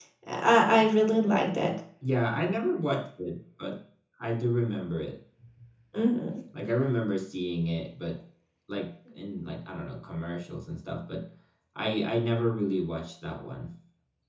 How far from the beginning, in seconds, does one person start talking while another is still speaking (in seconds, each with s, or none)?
none